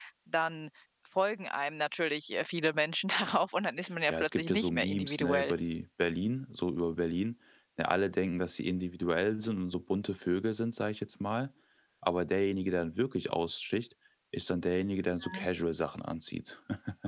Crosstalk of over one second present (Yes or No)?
Yes